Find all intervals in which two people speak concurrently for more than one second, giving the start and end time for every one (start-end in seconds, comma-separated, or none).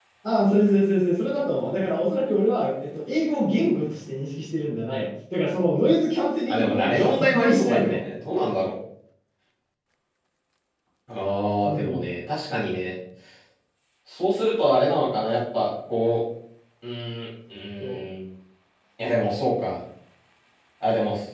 6.5-8.0